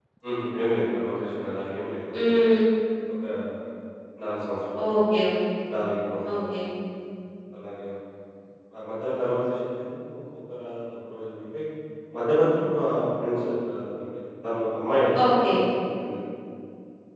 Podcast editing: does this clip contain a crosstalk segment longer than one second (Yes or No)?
No